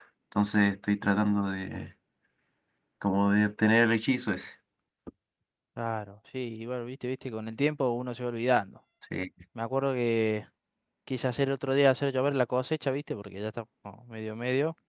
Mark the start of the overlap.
none

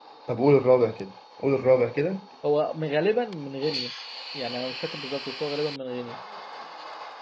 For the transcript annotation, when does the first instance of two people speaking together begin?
none

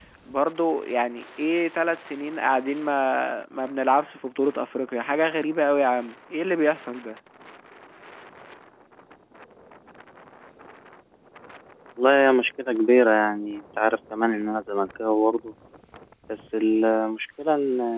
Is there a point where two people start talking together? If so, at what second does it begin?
none

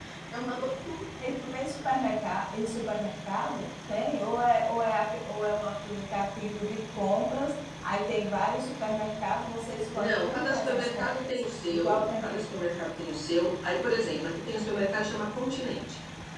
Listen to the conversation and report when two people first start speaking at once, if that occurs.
10 s

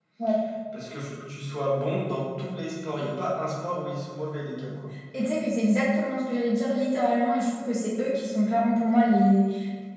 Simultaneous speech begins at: none

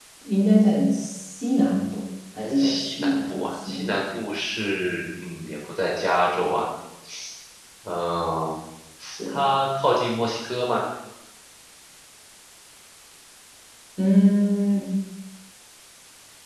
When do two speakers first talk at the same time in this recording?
3 s

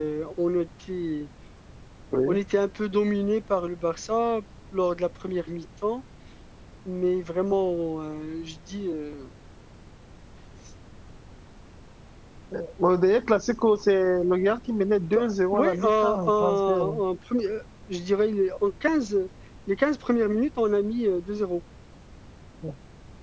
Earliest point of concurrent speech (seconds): 15 s

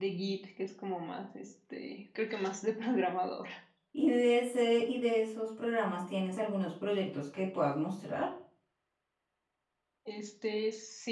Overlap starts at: none

